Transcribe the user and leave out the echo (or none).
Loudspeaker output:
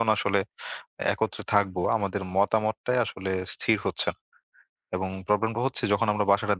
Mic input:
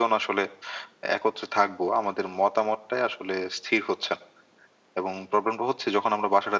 none